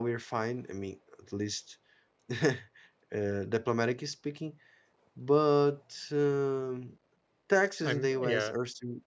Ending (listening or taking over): listening